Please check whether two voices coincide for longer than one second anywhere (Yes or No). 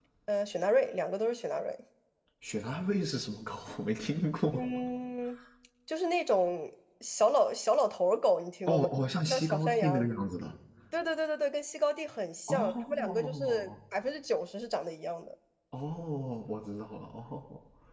Yes